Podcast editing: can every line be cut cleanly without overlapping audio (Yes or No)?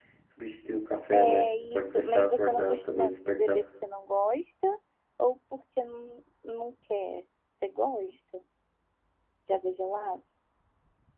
No